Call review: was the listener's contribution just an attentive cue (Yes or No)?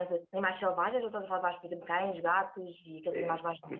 No